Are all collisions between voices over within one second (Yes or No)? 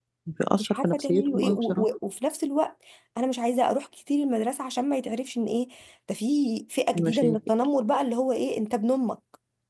No